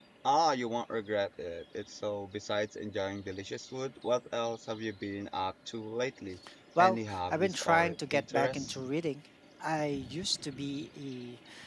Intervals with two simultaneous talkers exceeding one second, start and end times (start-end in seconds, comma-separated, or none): 6.8-8.8